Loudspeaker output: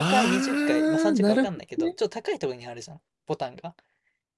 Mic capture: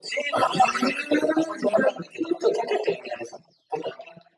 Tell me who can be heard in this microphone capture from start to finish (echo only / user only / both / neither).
echo only